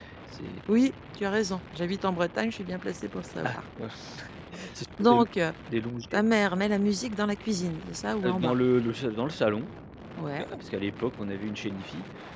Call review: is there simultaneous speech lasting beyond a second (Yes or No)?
No